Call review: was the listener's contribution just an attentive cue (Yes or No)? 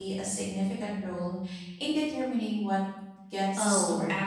No